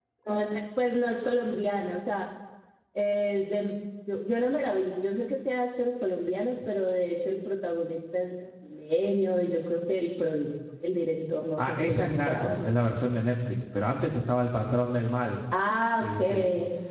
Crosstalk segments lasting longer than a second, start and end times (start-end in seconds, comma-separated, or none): 11.6-12.8